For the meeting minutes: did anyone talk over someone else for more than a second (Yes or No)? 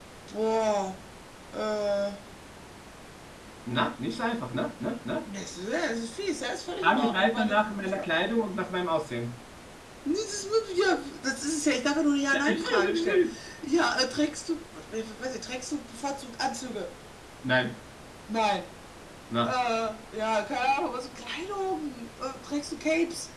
Yes